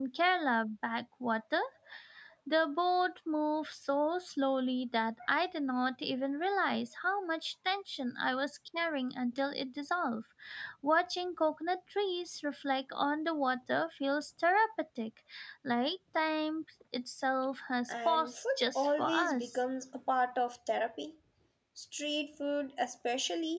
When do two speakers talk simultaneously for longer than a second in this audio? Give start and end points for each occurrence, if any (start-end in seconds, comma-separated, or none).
17.9-19.6